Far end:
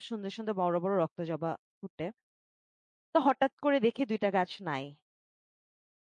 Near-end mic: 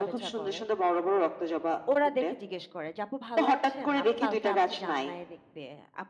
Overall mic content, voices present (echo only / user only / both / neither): both